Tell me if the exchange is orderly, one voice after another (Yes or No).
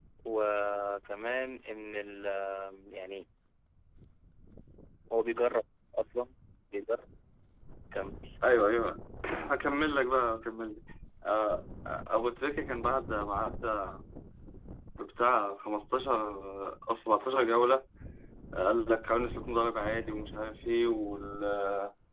Yes